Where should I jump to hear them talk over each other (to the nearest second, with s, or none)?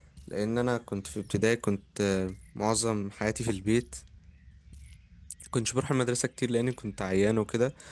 none